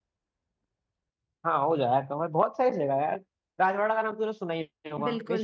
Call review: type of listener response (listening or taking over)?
taking over